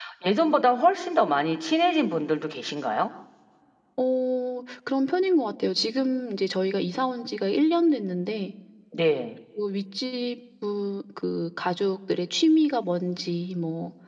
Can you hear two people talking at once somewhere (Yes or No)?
No